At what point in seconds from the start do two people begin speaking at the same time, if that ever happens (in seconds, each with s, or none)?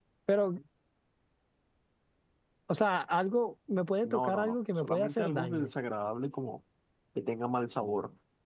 4.0 s